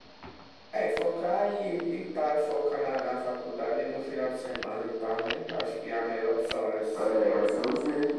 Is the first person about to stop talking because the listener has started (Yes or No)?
Yes